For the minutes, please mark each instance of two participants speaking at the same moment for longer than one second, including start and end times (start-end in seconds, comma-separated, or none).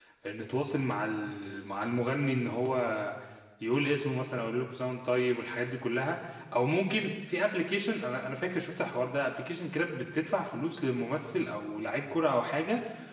none